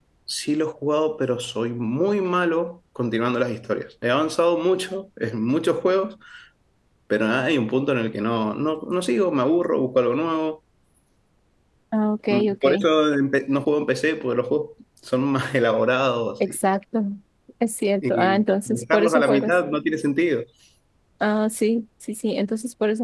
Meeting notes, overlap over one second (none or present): present